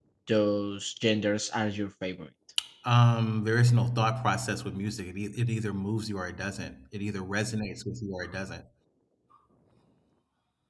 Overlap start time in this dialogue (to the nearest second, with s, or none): none